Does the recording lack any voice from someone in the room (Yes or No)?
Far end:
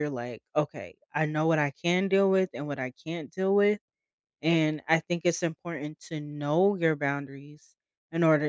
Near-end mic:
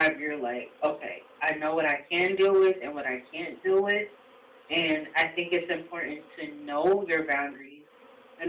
Yes